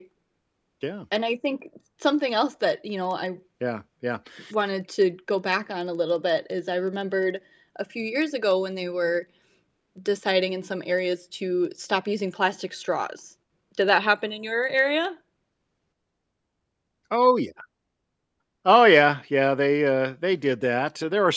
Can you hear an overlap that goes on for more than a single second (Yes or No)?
No